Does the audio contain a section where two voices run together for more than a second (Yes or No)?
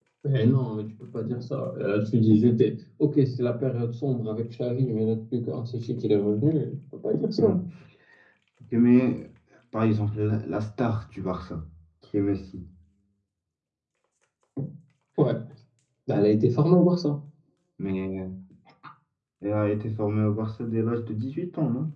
No